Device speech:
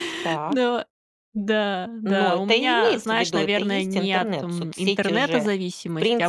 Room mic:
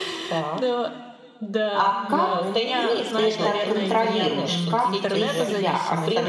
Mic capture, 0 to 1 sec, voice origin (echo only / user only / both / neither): echo only